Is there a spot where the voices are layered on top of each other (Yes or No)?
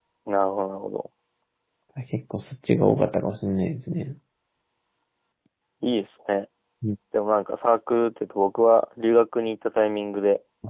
No